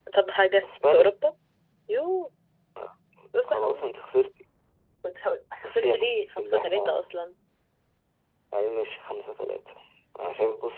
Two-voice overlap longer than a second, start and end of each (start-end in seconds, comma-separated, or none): 5.6-7.1